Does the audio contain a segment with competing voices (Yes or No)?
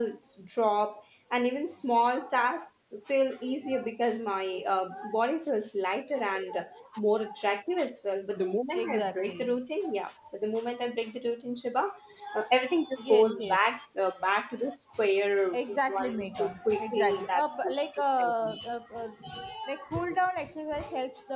Yes